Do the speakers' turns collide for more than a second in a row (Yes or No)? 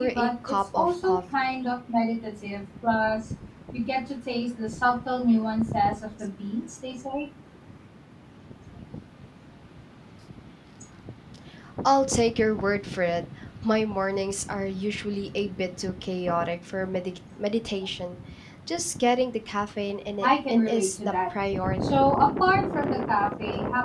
Yes